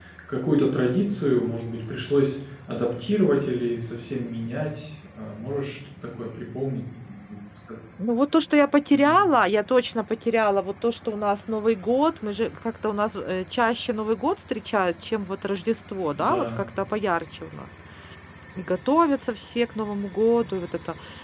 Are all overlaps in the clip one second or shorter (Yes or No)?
Yes